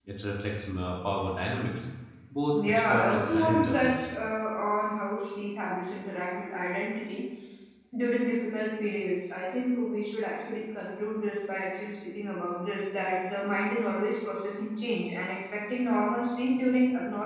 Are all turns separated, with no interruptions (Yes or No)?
No